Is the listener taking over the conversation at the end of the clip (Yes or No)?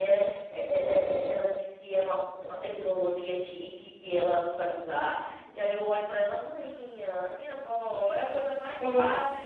No